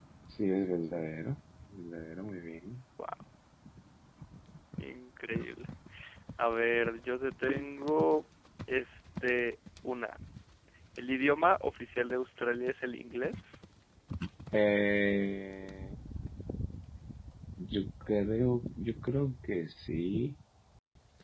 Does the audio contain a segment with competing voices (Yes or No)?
No